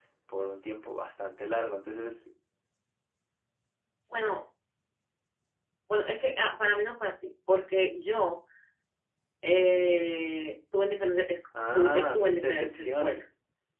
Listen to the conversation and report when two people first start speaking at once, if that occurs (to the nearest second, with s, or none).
12 s